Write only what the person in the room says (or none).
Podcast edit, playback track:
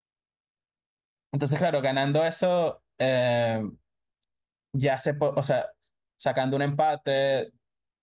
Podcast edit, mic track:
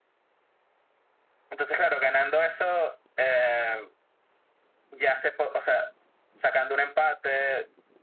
none